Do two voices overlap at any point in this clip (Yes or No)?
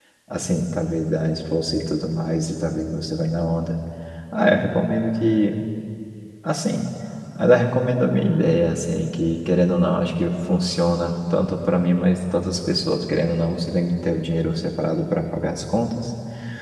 No